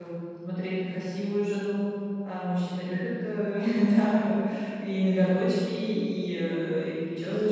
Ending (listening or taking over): taking over